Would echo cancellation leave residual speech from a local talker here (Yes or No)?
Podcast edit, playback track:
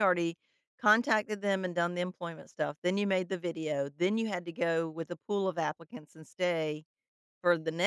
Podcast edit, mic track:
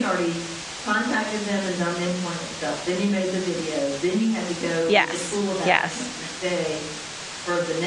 Yes